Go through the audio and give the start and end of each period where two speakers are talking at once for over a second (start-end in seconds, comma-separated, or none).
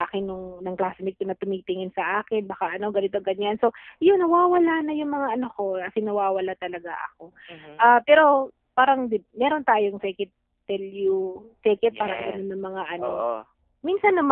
11.8-13.2